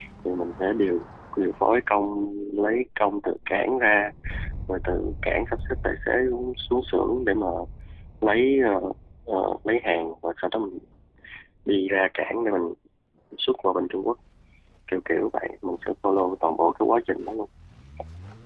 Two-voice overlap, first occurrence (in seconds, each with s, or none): none